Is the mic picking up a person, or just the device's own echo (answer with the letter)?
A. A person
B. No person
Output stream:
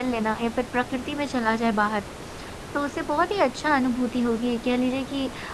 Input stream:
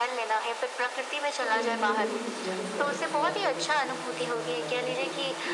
A